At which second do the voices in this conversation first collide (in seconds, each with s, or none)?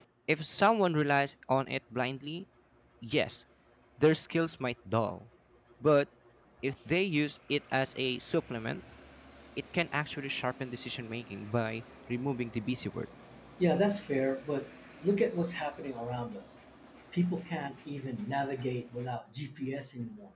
none